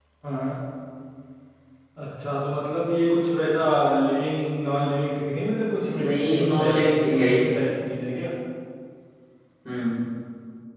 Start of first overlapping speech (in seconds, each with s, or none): 6.0 s